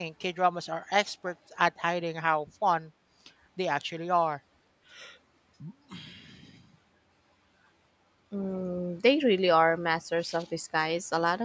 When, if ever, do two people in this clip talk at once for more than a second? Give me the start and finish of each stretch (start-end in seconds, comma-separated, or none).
none